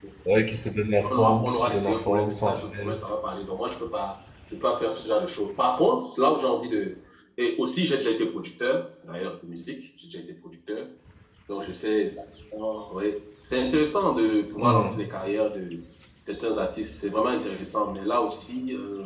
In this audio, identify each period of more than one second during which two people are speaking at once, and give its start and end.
1.1-3.0

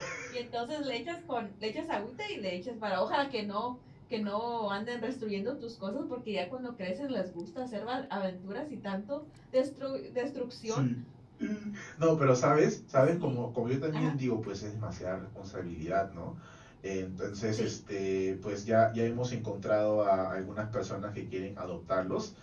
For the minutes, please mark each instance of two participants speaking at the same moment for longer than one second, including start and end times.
none

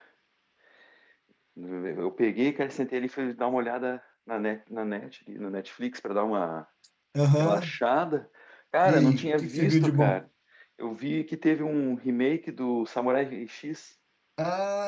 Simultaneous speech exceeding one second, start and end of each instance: 8.8-10.2

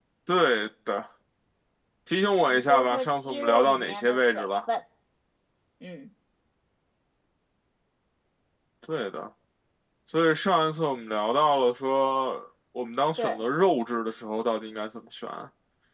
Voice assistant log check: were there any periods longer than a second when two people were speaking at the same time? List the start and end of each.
2.4-4.5

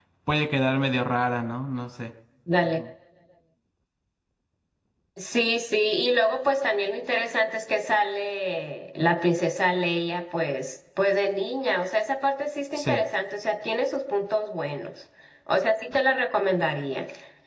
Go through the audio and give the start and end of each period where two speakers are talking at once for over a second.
none

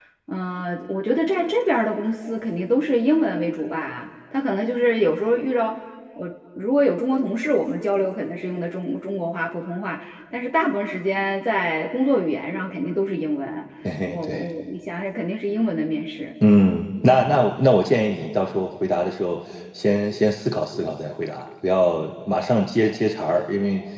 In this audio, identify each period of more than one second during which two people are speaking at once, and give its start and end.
none

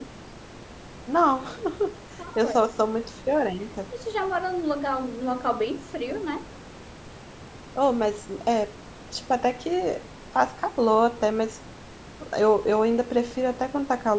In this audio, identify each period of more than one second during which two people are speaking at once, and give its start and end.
none

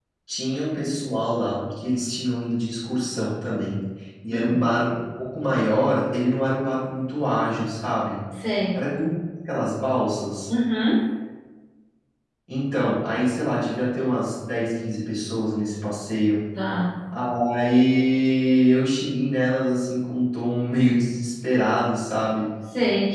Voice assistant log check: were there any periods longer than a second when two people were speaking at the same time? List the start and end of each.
none

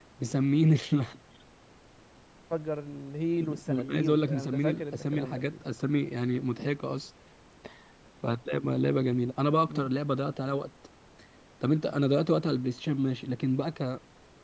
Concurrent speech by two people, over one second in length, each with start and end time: 3.4-5.5

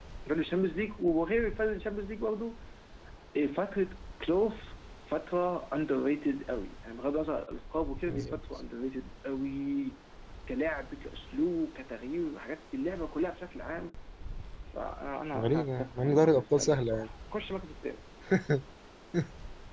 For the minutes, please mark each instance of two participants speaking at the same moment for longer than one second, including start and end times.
15.4-17.1

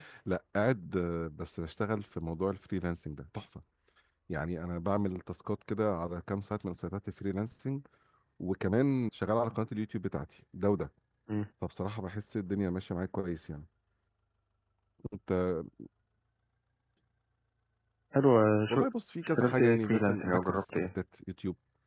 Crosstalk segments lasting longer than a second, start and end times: 19.2-20.9

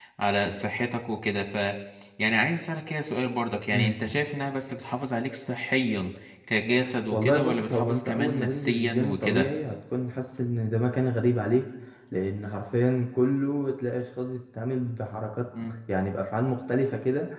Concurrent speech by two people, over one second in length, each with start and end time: 7.1-9.5

